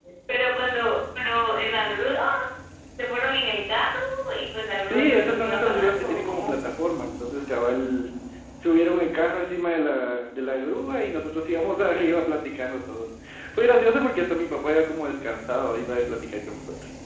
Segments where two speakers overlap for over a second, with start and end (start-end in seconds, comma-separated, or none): 4.8-6.5